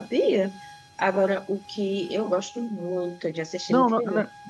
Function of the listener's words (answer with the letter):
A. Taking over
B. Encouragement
A